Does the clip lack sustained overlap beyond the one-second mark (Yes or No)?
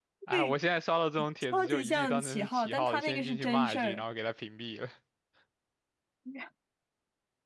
No